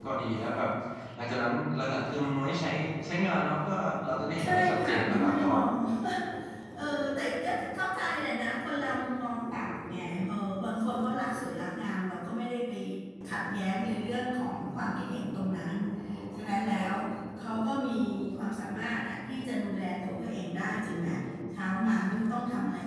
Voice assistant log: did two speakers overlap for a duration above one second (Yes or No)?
Yes